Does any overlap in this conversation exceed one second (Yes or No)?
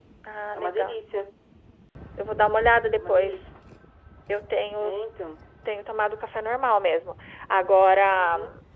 No